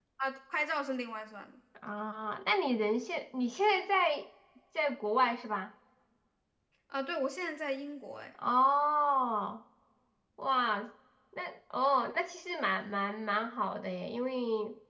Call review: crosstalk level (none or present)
none